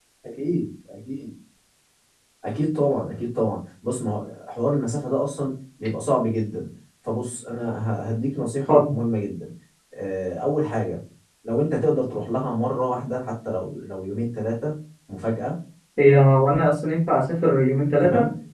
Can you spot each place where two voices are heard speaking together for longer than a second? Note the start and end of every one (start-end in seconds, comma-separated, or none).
none